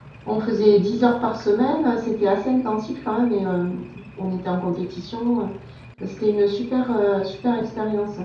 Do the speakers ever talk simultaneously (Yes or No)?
No